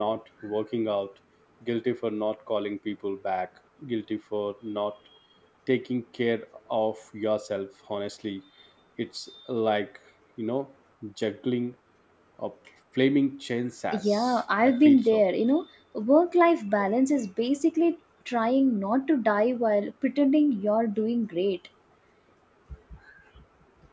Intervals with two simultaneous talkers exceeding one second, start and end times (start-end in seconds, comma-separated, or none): 13.9-15.2